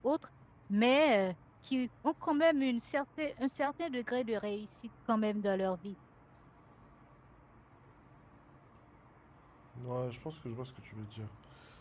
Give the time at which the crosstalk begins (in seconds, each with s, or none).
none